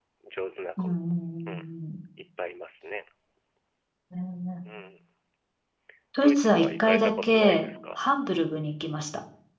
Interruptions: present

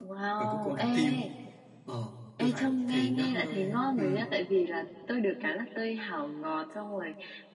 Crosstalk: present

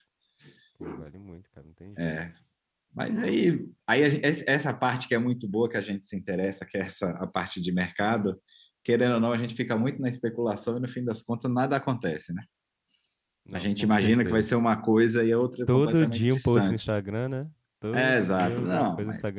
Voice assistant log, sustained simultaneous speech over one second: present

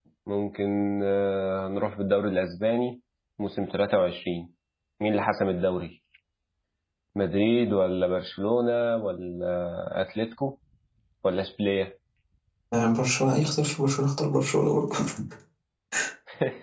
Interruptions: none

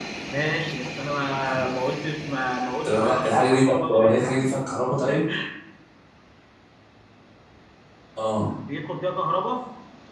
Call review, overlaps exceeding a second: present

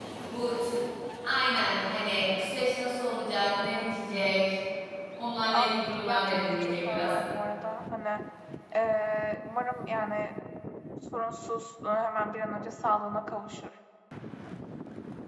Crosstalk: present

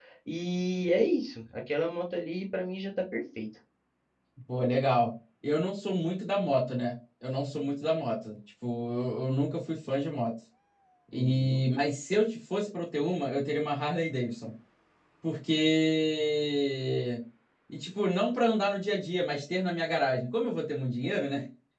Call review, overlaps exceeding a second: none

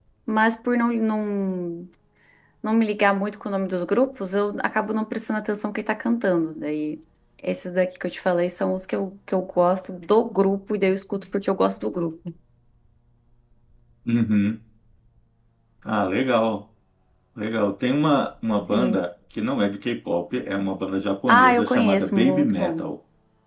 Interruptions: present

